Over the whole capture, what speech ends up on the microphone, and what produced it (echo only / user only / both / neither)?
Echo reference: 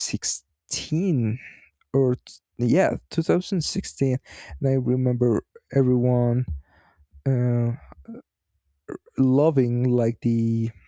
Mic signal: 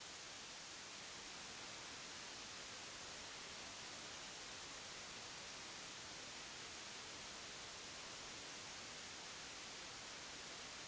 neither